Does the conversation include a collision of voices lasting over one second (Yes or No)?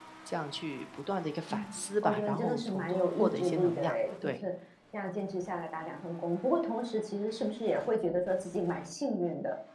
Yes